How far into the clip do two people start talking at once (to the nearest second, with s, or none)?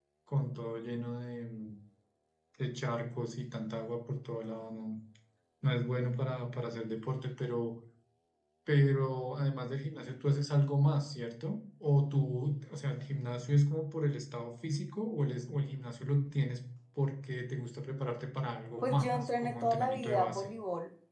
19 s